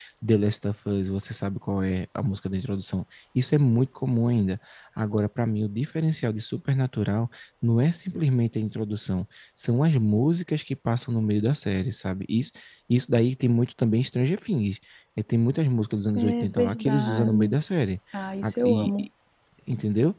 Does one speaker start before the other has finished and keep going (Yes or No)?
Yes